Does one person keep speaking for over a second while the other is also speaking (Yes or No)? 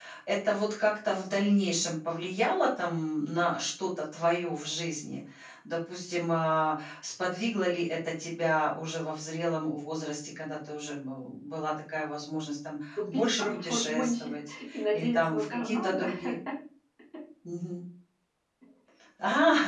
Yes